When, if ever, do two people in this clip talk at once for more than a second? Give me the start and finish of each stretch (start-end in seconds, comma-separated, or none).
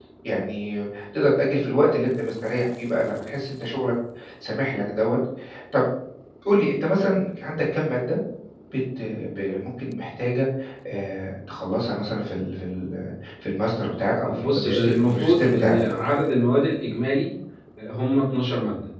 14.3-16.0